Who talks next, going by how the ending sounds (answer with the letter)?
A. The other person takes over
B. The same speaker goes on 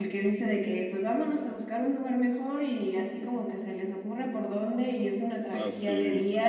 B